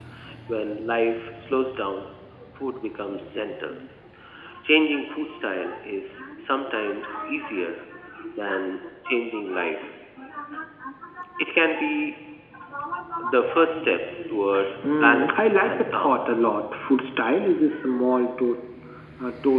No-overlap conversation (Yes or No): No